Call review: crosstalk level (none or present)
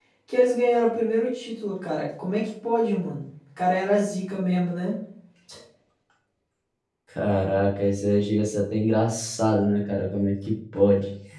none